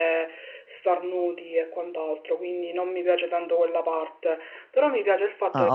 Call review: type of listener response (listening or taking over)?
taking over